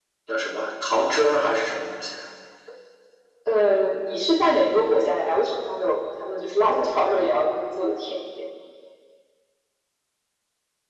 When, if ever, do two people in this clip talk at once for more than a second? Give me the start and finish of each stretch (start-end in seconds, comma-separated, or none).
none